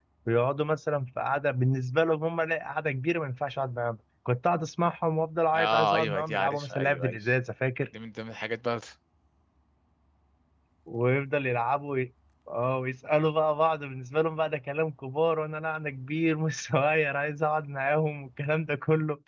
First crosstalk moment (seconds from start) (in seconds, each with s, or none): 5.5 s